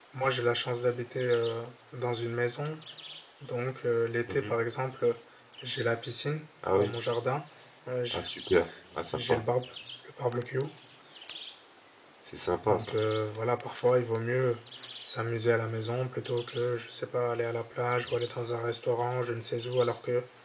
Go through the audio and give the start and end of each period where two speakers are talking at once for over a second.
none

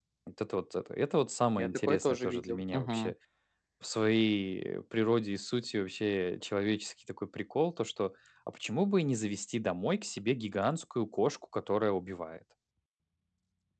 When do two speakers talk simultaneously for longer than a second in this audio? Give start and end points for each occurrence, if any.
1.6-3.1

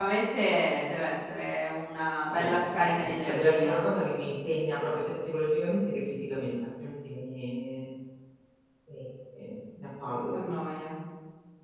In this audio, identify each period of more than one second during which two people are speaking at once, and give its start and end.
2.3-3.8

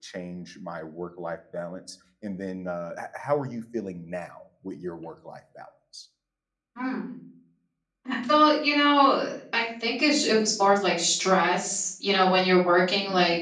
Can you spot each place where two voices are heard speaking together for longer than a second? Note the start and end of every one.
none

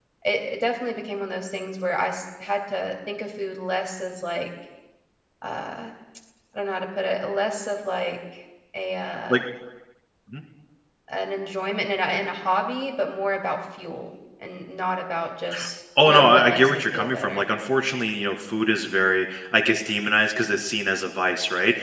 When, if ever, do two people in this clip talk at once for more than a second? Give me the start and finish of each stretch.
16.0-17.5

